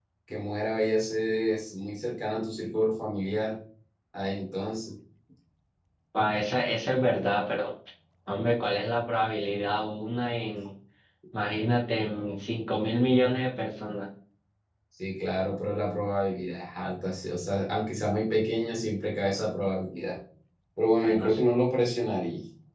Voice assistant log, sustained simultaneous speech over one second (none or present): none